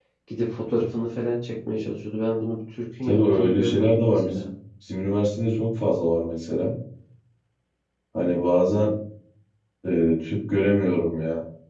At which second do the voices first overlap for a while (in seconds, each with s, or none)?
3.1 s